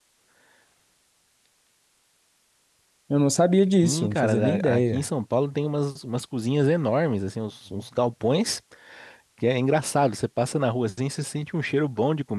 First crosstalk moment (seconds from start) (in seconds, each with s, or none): 3.8 s